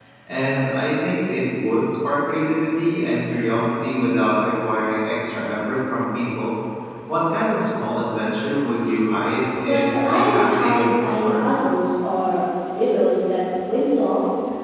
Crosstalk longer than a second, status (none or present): present